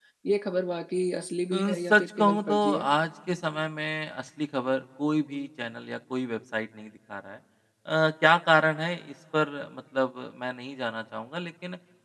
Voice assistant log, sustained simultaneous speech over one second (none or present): present